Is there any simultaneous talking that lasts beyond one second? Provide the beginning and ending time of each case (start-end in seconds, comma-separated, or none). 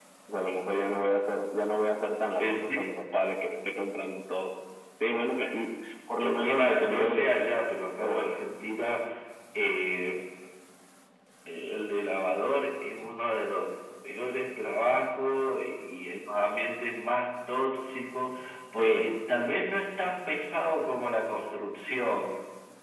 6.2-7.5